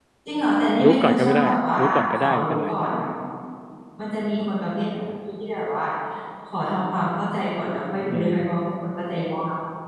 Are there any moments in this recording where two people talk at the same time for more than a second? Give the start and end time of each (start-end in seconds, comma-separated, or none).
0.8-2.7